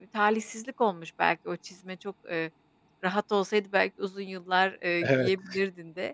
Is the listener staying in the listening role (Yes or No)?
Yes